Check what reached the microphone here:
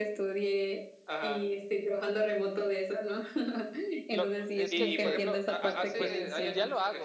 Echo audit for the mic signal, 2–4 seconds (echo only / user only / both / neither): echo only